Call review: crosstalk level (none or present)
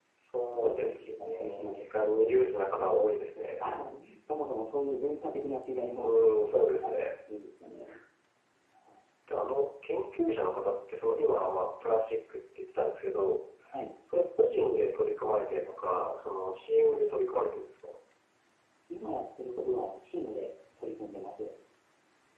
present